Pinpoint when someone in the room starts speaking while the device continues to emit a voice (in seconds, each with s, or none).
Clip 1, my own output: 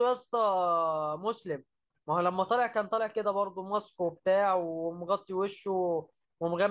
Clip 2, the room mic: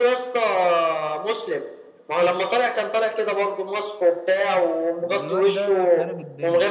5.0 s